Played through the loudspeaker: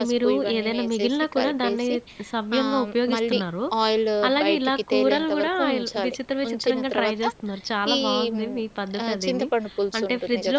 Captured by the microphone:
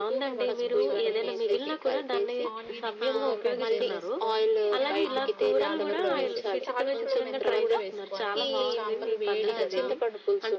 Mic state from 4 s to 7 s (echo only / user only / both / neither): both